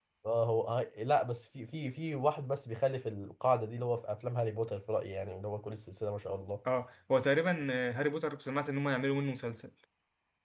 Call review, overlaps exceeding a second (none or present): none